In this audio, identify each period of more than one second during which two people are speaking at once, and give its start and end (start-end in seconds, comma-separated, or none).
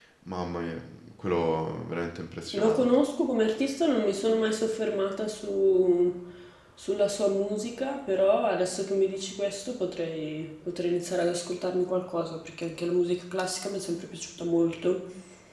none